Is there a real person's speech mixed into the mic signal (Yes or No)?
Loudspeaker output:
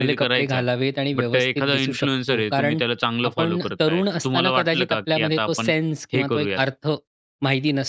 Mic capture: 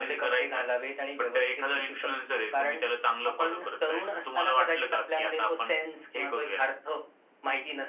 No